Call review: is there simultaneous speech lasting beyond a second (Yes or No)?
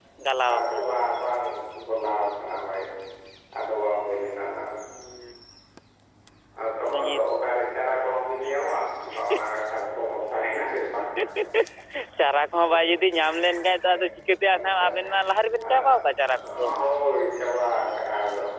No